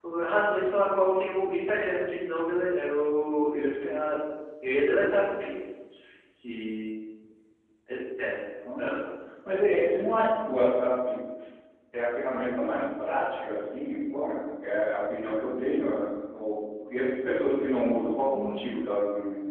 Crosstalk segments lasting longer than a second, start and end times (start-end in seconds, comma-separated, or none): none